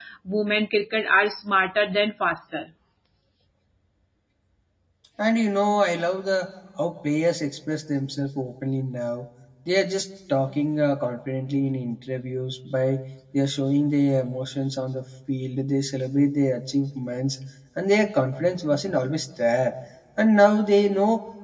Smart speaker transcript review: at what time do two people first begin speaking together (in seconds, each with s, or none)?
none